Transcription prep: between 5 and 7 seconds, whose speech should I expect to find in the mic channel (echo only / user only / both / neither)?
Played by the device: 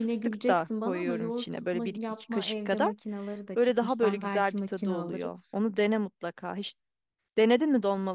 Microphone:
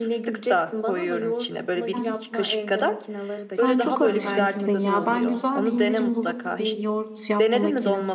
both